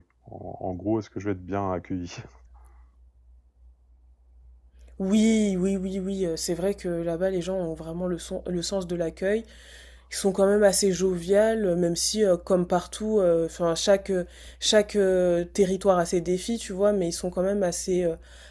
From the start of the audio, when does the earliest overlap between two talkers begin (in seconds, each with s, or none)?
none